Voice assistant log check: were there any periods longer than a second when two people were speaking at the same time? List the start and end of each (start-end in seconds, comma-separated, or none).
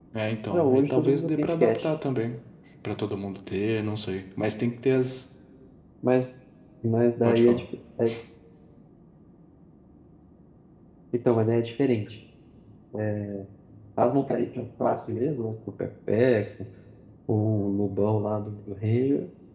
0.5-1.9